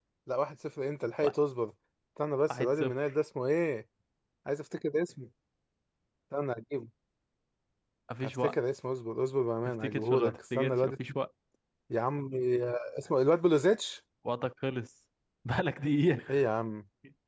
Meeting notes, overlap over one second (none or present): present